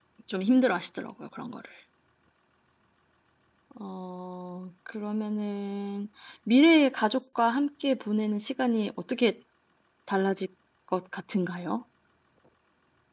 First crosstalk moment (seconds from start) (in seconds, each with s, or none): none